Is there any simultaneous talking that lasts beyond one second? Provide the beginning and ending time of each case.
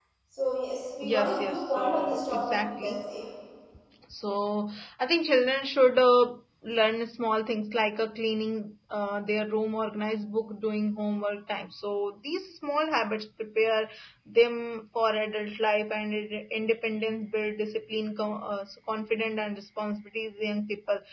1.0-3.0

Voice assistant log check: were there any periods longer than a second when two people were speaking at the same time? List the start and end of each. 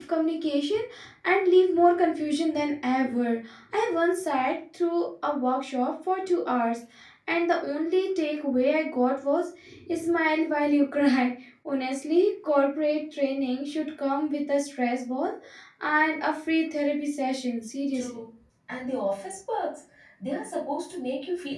none

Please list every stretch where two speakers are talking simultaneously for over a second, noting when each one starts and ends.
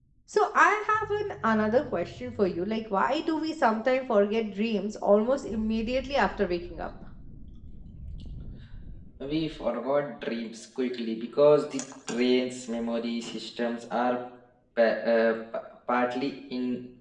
none

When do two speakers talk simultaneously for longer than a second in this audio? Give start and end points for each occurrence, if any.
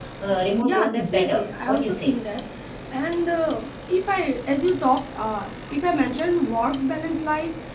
0.6-2.1

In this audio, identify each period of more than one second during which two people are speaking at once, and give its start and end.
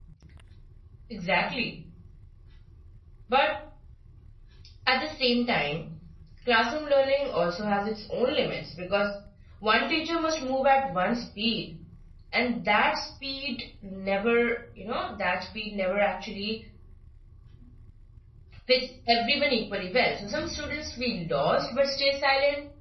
none

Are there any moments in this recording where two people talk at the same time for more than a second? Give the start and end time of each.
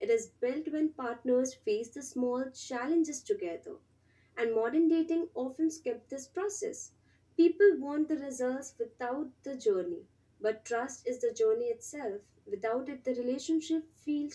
none

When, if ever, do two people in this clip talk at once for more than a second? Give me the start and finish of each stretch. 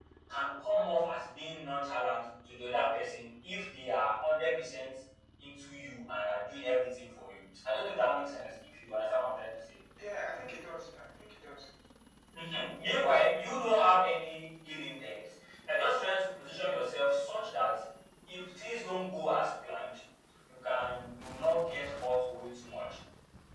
none

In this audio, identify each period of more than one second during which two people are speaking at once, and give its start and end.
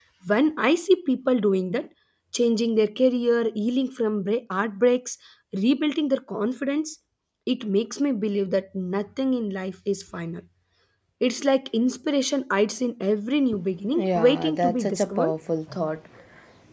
13.9-15.3

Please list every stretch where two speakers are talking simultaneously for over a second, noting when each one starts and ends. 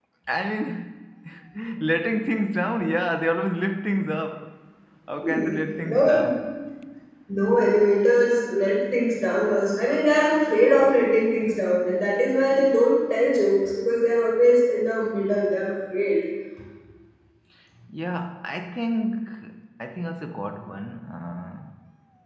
none

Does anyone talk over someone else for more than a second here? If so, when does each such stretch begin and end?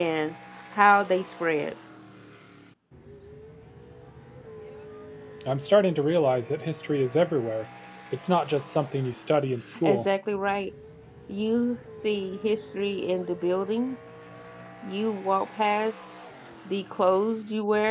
none

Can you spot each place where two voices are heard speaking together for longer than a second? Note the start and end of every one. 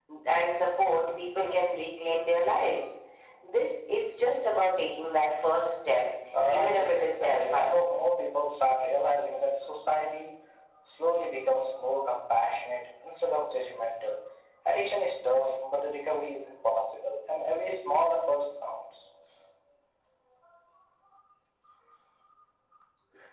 6.5-7.8

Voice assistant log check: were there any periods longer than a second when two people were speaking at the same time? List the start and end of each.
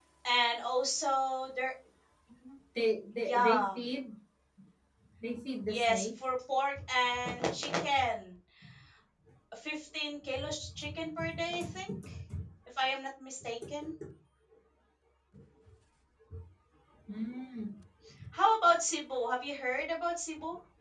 none

